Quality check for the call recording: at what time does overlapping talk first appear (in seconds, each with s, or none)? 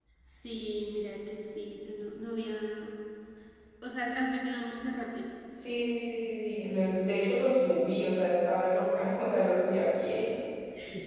none